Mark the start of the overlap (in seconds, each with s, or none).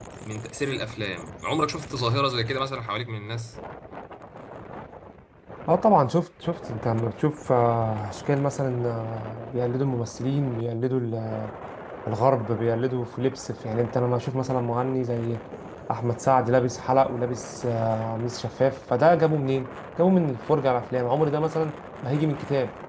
none